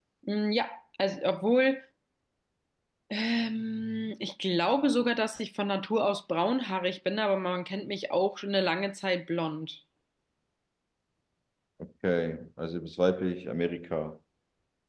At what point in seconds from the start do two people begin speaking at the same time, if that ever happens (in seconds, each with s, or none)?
none